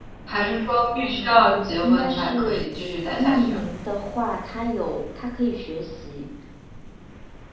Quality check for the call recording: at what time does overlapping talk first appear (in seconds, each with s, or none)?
1.0 s